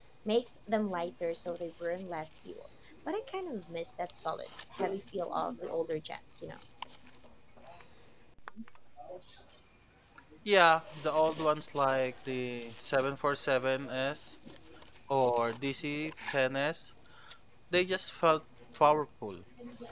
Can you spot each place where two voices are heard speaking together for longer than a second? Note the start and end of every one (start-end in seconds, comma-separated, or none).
none